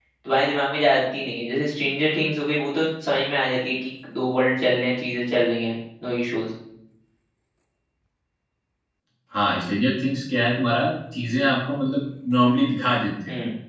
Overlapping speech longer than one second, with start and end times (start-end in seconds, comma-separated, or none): none